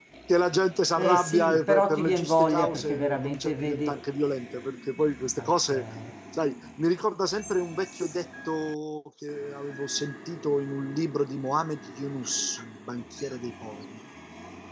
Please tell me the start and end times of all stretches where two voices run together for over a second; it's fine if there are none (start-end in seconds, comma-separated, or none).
1.0-4.0